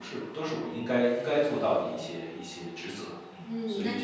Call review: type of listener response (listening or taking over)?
taking over